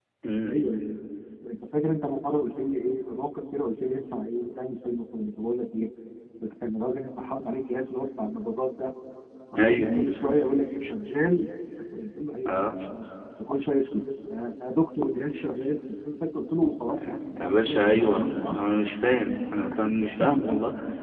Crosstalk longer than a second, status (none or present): present